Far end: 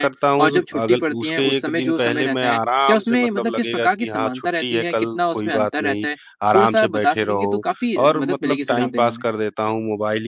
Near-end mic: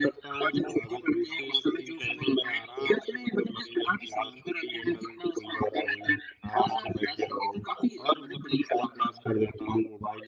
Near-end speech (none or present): none